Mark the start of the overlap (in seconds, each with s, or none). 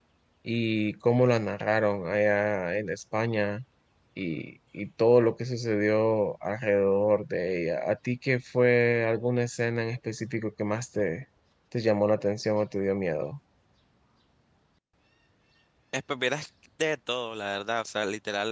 none